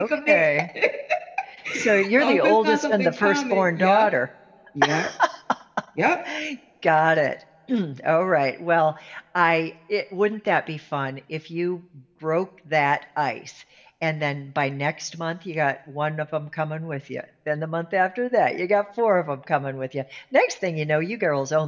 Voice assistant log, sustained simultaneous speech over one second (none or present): present